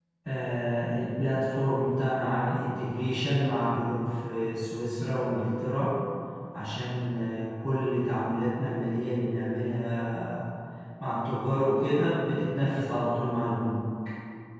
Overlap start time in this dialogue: none

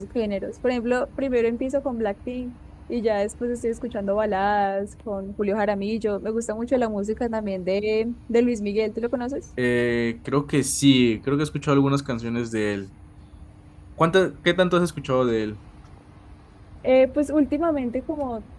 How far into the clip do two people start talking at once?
none

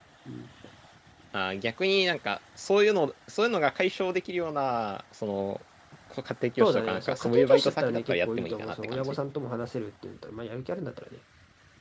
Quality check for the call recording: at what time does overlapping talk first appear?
6.6 s

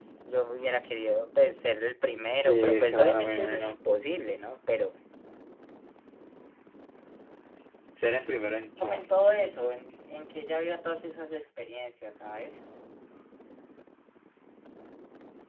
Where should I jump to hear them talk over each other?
2.3 s

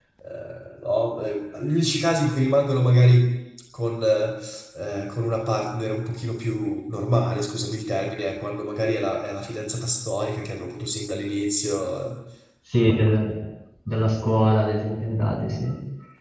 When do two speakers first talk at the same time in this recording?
none

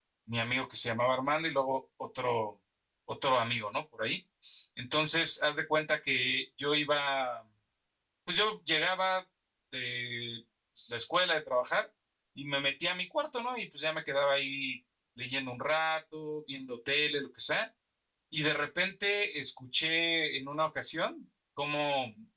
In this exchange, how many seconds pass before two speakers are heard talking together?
none

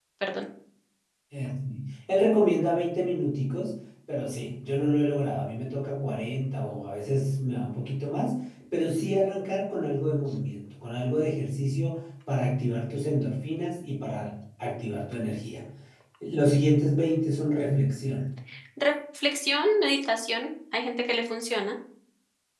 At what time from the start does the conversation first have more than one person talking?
none

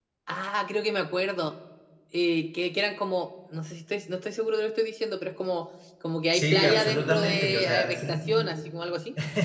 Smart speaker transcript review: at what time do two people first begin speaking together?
6.3 s

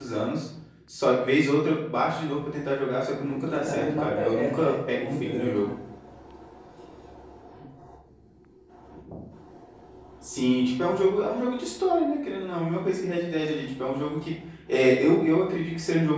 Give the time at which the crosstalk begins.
3.2 s

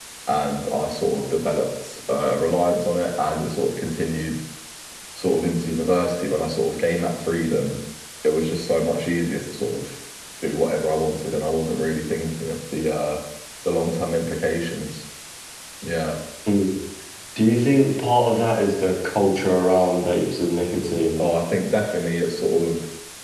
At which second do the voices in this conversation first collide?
none

